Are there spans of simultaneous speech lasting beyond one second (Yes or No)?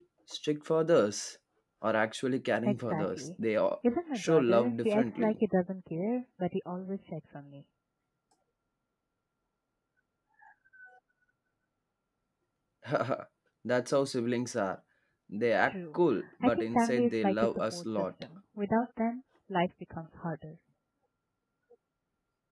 Yes